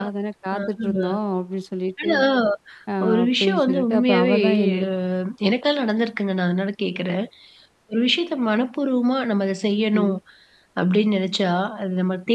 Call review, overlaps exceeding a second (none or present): present